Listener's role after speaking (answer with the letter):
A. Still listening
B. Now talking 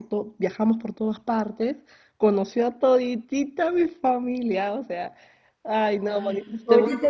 B